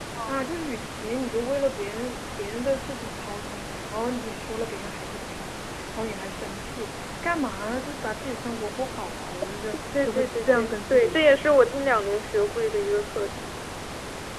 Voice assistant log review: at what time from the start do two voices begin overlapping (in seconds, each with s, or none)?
9.9 s